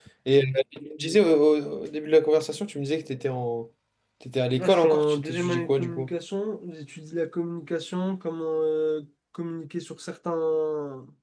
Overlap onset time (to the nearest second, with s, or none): 5 s